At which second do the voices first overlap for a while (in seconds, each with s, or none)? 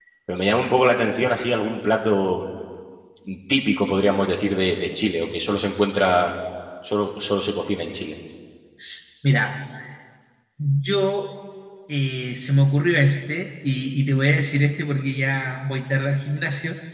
none